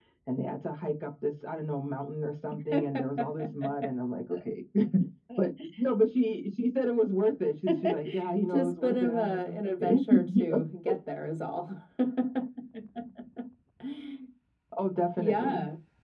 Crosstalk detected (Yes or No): Yes